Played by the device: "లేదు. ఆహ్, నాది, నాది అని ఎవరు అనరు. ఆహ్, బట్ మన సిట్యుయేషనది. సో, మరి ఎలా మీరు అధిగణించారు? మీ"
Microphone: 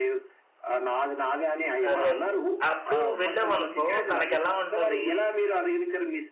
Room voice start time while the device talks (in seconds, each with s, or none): 1.9 s